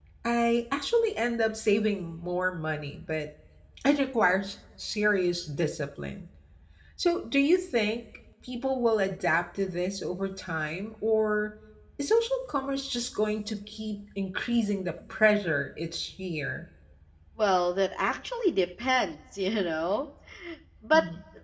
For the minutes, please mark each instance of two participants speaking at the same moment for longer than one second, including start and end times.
none

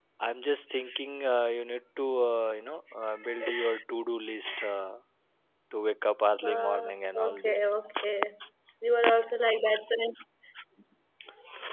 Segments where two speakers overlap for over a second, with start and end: 6.4-7.7

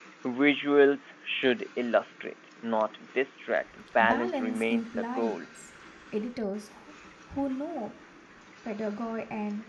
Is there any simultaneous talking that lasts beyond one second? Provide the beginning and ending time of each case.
4.0-5.3

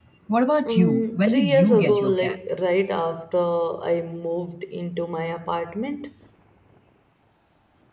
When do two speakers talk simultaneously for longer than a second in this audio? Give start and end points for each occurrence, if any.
0.7-2.4

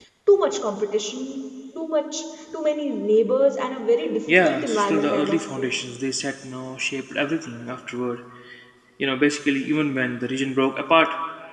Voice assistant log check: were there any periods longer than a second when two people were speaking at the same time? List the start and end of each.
4.4-5.7

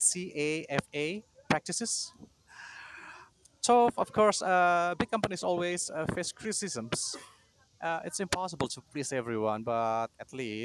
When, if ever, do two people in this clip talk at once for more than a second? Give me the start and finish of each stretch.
none

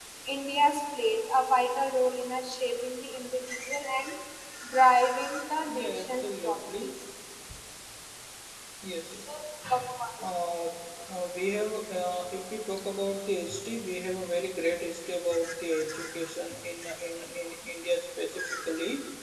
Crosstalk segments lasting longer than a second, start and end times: 5.7-6.9

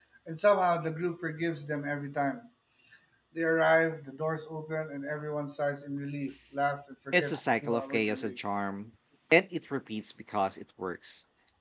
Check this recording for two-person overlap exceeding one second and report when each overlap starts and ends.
7.1-8.4

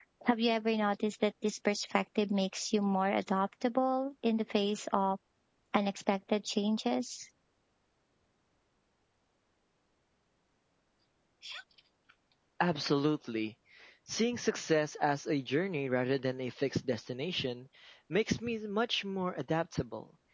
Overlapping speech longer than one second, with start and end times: none

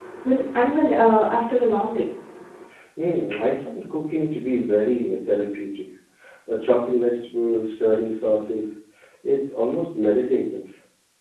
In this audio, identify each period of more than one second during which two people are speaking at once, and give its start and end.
none

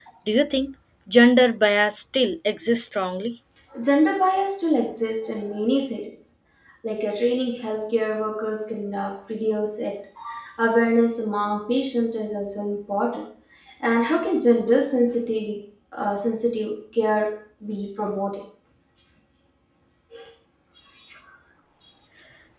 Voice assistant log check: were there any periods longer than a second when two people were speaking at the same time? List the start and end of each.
none

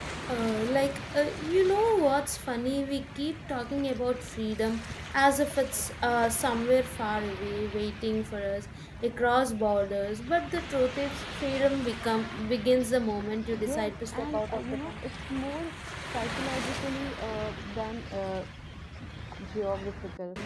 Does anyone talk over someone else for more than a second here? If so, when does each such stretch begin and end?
13.5-14.9

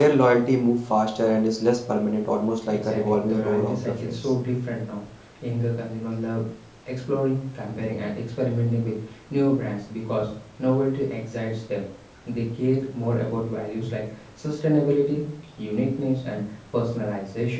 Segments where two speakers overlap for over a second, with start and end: 2.7-4.3

